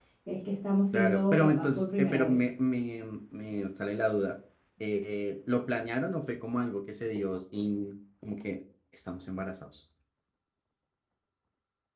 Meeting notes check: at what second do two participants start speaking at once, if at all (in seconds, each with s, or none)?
0.9 s